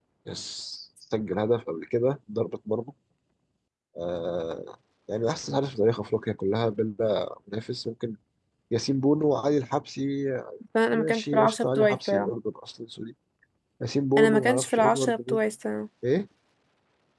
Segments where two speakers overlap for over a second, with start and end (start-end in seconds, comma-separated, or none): 10.9-12.3, 14.2-15.4